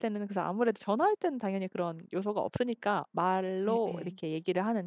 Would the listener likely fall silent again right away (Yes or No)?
Yes